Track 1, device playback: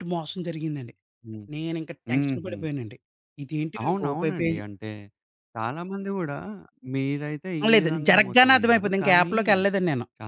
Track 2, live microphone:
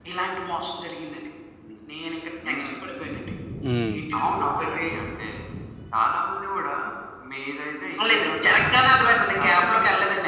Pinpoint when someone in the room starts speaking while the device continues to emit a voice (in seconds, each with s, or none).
3.7 s